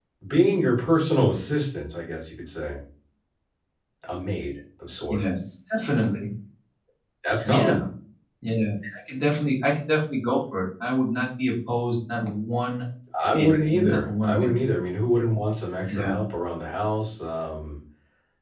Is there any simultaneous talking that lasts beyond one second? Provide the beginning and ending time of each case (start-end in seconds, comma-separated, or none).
13.3-14.6